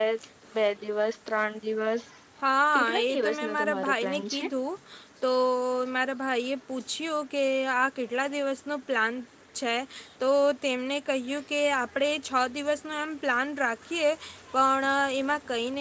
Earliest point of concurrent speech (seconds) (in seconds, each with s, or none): 2.8 s